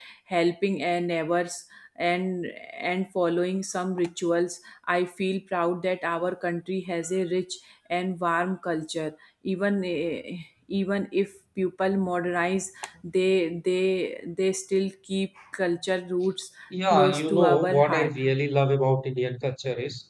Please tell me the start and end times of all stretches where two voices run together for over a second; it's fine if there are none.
16.9-18.1

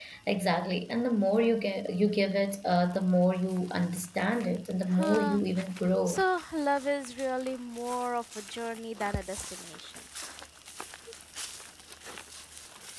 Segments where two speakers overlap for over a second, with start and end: none

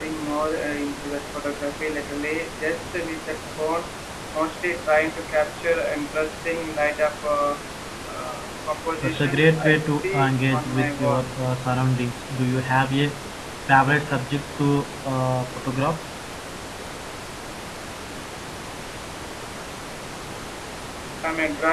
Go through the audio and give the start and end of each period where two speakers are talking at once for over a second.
9.0-11.2

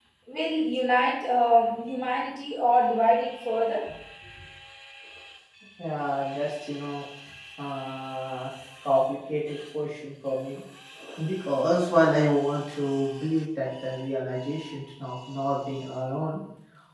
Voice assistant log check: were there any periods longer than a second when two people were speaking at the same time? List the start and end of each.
none

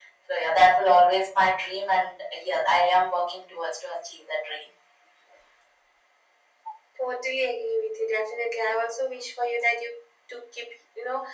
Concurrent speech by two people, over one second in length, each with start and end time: none

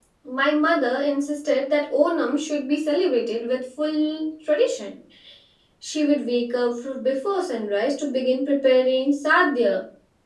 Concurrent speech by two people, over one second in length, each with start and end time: none

